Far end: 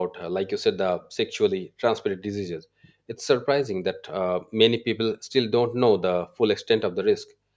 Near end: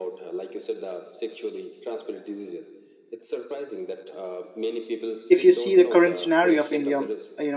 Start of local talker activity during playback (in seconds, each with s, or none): 5.3 s